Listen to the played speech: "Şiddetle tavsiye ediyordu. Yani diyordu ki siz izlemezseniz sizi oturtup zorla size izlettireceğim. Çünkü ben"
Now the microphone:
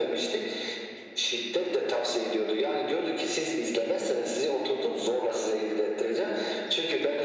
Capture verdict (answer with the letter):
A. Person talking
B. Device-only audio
B